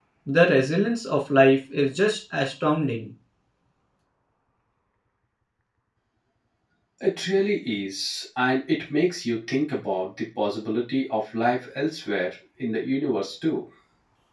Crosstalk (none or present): none